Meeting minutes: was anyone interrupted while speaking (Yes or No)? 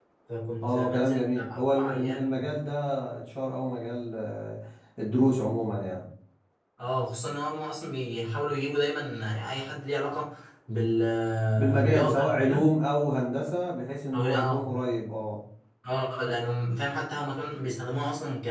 Yes